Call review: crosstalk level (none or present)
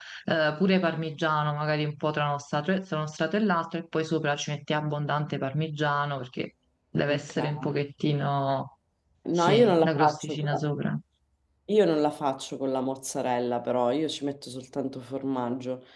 present